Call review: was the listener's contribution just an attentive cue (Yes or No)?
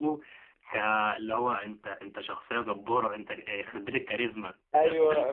No